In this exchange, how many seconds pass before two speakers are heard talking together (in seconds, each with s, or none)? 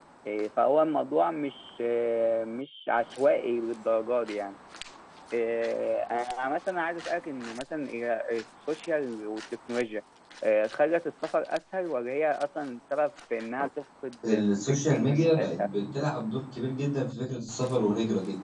14.2 s